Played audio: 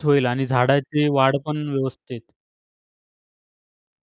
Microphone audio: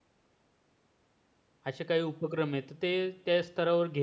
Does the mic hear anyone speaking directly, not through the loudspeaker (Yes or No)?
Yes